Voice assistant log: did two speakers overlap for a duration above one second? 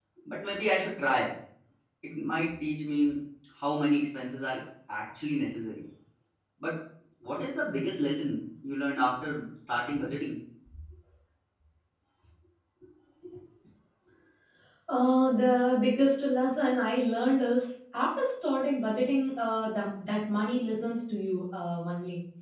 No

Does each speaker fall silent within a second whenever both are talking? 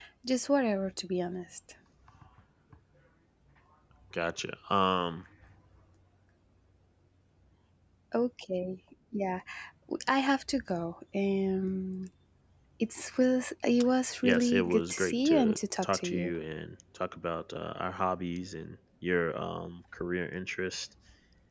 No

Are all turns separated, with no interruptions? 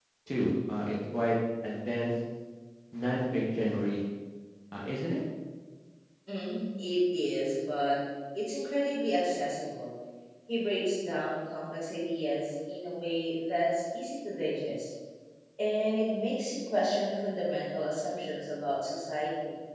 Yes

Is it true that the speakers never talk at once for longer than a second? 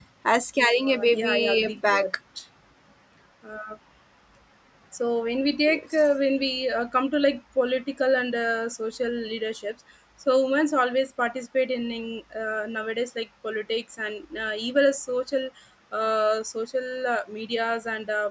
No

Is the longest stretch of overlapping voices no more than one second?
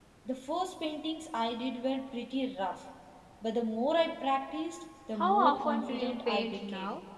No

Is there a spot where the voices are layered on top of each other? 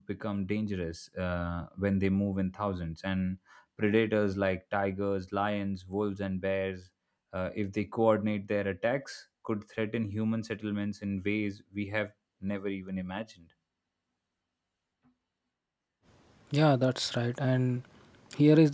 No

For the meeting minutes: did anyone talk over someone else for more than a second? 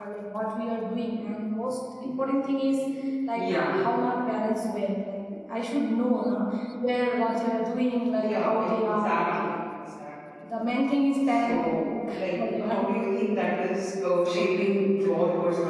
Yes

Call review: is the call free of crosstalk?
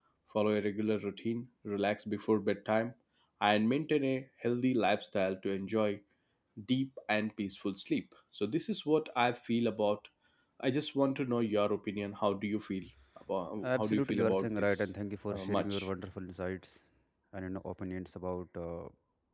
No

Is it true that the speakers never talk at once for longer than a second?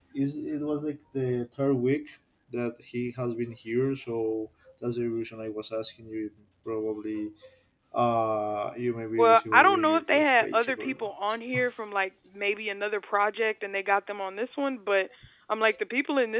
No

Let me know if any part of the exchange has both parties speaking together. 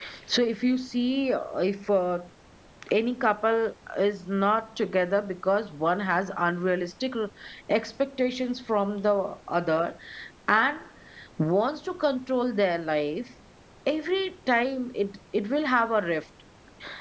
No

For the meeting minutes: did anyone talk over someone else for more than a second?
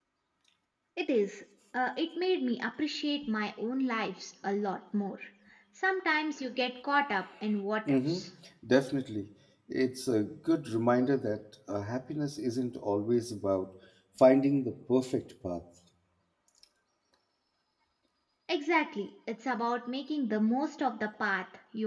No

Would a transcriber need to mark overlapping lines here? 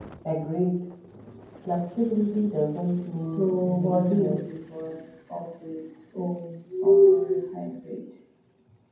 Yes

